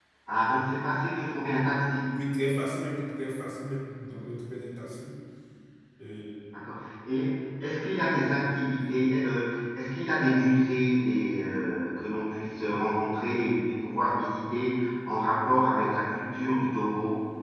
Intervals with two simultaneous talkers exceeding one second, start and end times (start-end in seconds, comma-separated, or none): none